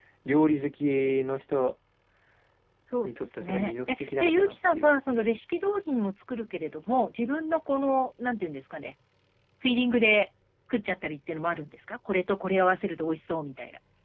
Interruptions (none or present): present